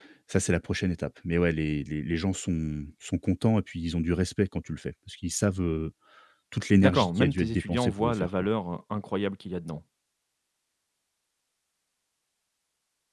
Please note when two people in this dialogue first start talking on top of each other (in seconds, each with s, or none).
6.8 s